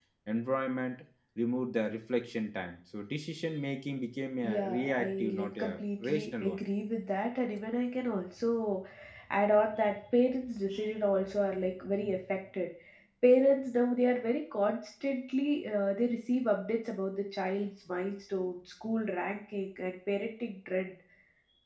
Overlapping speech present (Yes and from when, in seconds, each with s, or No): Yes, from 4.4 s